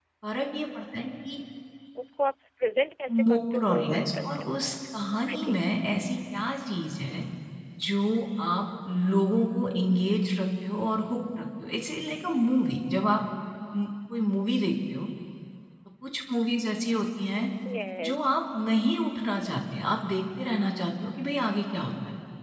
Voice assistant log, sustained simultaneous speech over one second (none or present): present